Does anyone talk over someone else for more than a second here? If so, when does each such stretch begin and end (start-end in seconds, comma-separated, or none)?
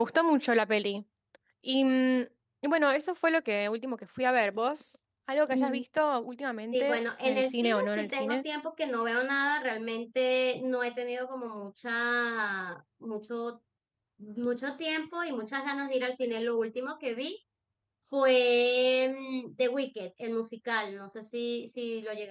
6.7-8.4